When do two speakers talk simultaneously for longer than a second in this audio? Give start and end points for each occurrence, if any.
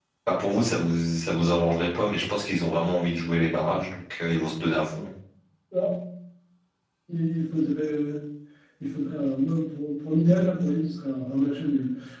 none

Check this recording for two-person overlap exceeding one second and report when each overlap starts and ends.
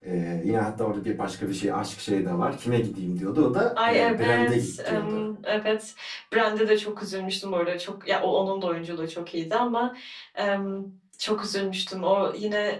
3.9-5.2

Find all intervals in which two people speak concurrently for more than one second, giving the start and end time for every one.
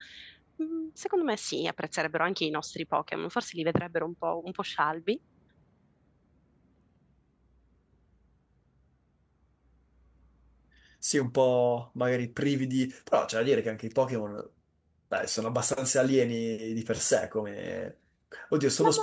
none

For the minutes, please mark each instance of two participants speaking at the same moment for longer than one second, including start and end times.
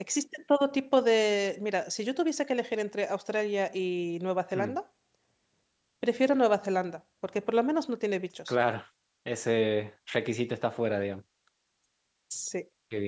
none

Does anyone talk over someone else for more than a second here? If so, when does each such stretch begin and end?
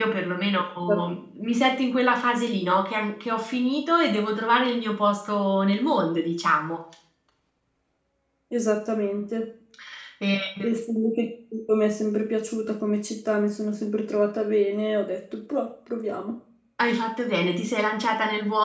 none

